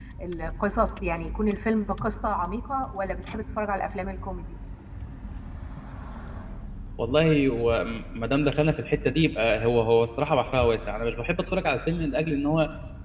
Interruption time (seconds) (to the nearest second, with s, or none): none